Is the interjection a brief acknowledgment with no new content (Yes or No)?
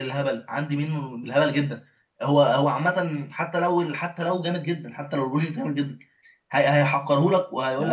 No